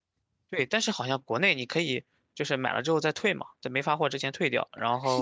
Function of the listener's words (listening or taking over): taking over